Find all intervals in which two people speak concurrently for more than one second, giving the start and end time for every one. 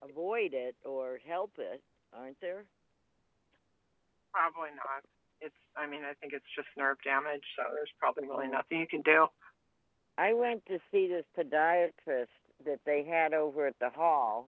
none

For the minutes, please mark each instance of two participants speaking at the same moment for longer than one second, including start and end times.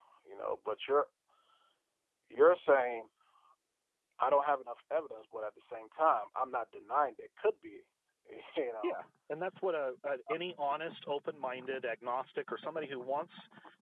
none

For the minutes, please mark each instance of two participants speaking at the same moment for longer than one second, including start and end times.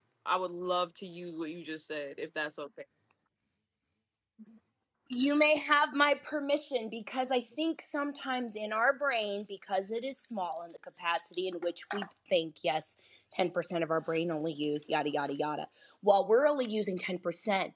none

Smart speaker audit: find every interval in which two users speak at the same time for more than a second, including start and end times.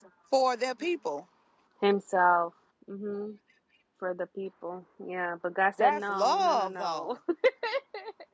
5.8-7.1

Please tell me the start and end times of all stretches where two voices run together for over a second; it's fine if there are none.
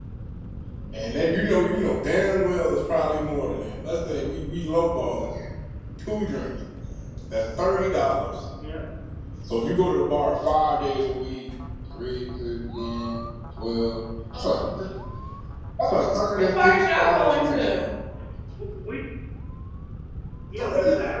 16.3-17.6

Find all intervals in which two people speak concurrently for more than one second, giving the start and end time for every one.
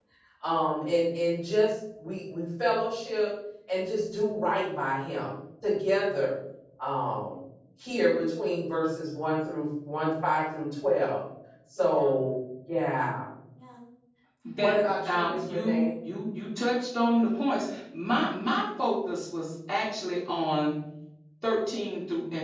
14.6-15.9

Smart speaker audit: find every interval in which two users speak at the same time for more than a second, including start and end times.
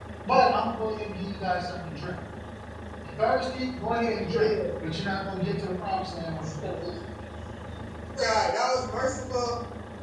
none

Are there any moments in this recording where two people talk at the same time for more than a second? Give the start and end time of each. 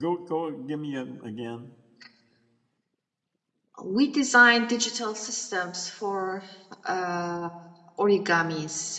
none

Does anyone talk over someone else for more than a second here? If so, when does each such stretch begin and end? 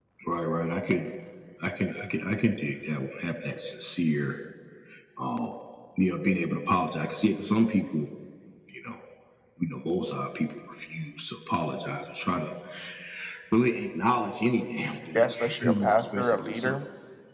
15.1-16.8

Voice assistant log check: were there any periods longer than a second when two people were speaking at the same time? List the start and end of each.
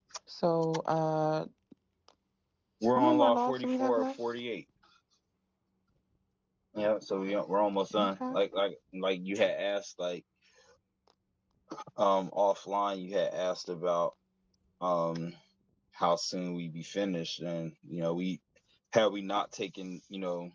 3.0-4.2

